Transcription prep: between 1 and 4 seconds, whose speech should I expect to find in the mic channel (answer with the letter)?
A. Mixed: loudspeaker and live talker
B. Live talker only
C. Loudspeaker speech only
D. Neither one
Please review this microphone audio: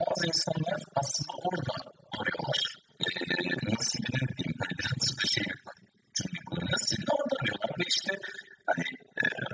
C